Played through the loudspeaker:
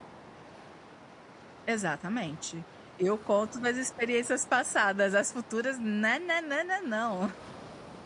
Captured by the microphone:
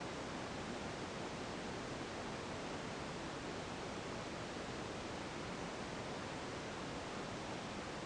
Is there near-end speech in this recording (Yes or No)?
No